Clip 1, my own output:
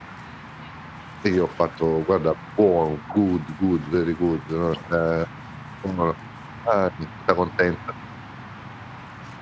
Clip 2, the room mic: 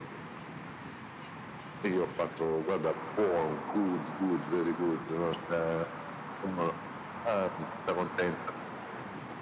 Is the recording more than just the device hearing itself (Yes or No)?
No